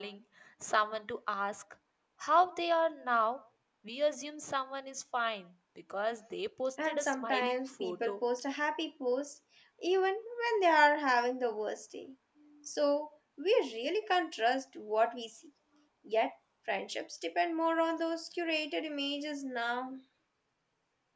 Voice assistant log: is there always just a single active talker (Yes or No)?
No